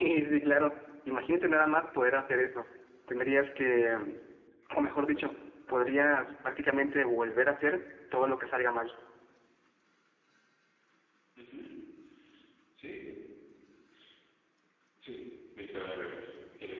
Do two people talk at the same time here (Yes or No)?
No